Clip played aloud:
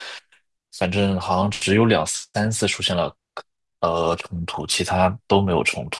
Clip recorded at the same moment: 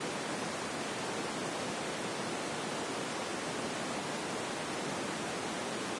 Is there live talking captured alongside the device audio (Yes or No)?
No